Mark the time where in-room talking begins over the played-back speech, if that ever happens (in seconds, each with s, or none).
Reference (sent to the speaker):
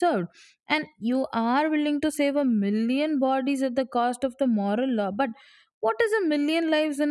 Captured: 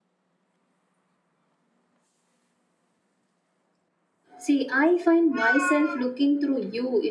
4.4 s